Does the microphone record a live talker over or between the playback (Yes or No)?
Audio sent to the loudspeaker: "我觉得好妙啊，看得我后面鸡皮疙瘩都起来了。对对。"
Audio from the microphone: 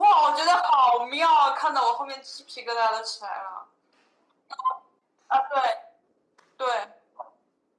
No